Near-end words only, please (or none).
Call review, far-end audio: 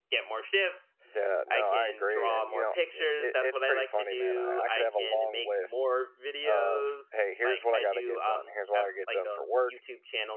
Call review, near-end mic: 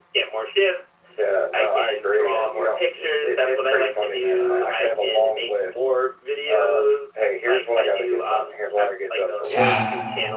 task